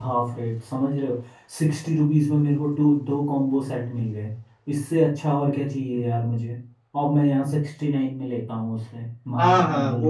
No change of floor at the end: No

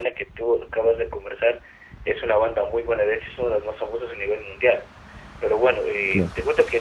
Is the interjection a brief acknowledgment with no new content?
Yes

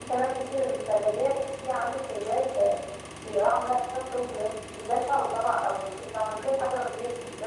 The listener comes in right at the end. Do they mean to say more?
No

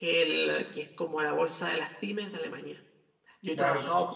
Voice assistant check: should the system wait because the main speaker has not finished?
Yes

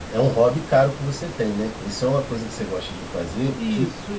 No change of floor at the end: No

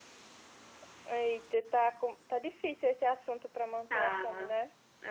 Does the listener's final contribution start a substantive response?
Yes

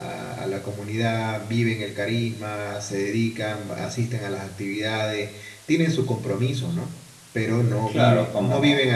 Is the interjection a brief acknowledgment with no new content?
No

